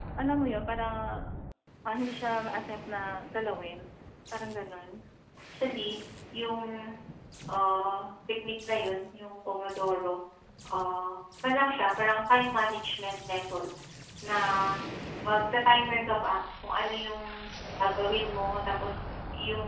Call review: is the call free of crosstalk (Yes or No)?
Yes